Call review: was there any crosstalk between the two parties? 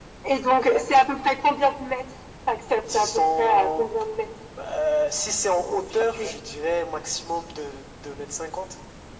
Yes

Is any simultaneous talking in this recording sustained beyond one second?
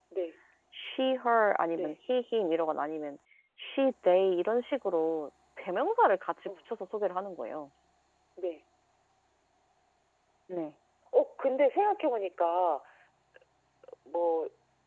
No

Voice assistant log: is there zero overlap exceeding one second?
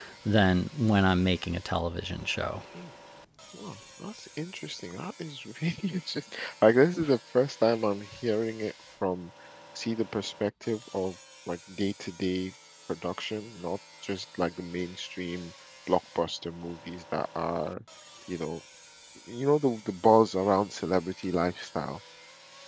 Yes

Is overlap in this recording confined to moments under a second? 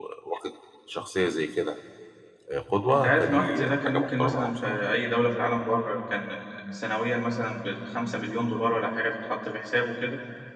No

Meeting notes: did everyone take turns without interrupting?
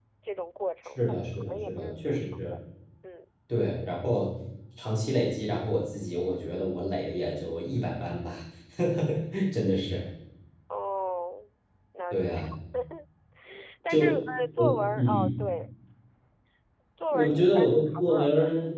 No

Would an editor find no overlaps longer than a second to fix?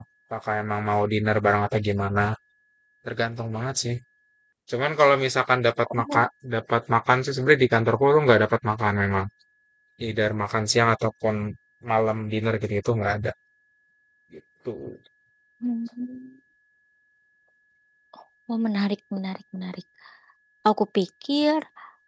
Yes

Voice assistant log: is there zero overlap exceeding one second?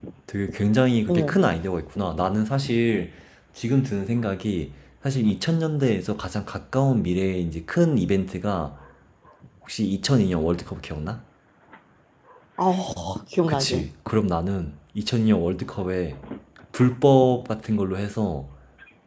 Yes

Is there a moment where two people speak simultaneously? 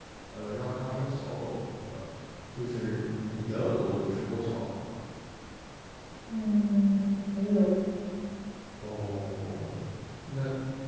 No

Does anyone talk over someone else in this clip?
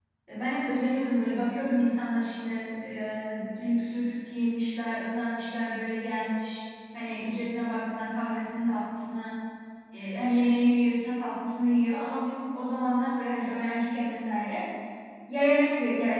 No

